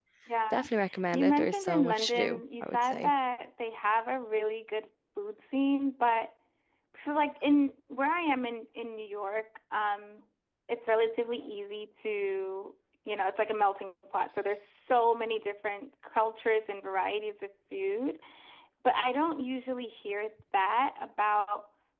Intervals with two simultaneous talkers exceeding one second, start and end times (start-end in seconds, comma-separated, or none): 1.1-3.1